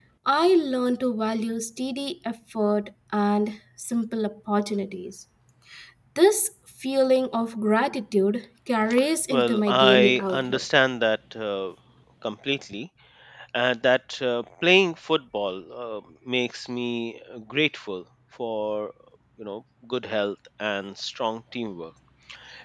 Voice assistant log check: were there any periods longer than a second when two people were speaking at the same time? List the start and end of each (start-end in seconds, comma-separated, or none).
9.3-10.6